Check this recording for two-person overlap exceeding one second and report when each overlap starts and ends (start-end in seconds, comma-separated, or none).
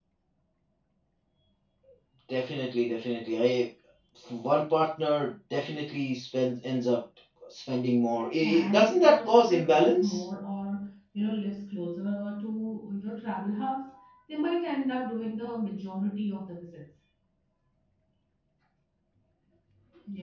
8.2-10.2